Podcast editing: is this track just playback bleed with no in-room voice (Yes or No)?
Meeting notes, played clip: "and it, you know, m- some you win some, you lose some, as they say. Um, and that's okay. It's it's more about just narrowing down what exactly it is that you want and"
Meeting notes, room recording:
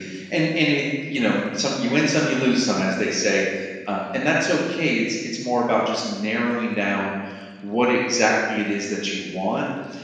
Yes